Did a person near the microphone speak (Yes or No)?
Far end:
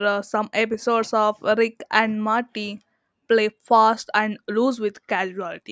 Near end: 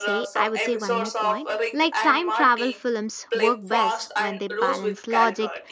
Yes